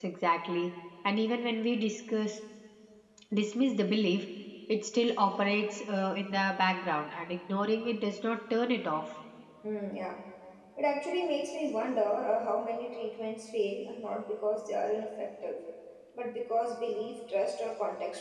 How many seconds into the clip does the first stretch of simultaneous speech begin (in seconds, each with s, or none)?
none